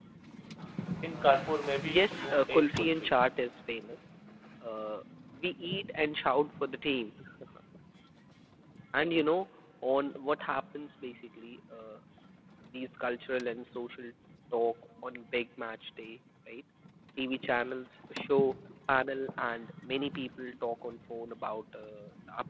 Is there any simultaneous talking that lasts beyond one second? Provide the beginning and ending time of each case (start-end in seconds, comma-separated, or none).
1.8-3.1